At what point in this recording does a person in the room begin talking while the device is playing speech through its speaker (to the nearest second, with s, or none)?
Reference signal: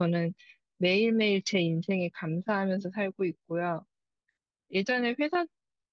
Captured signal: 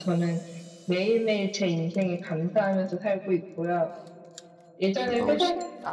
5 s